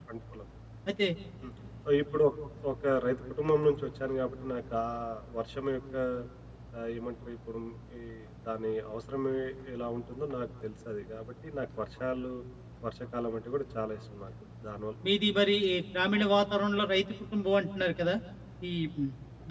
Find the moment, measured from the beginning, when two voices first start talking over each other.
none

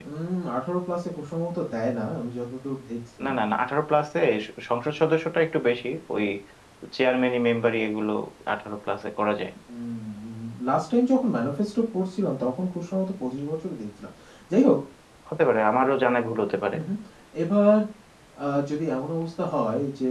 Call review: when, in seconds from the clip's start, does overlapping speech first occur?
none

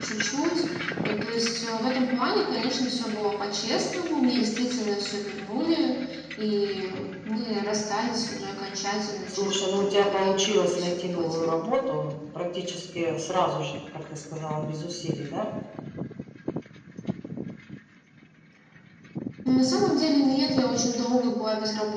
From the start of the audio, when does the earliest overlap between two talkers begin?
9 s

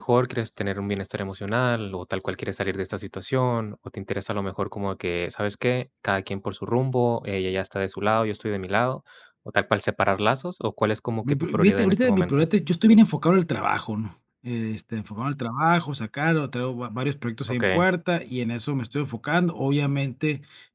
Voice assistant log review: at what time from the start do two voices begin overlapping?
11 s

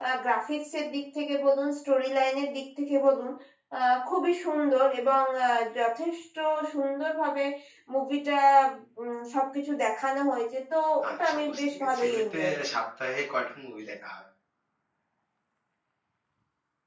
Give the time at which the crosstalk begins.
11 s

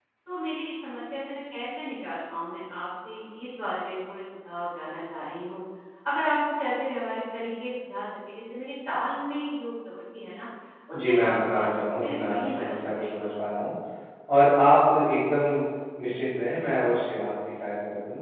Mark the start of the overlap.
11 s

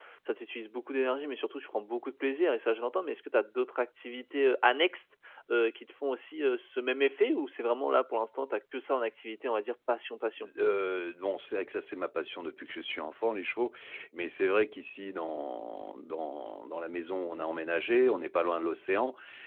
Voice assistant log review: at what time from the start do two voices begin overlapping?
none

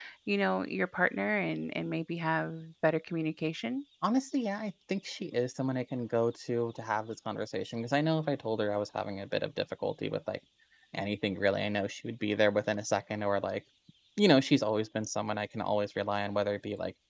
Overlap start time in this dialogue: none

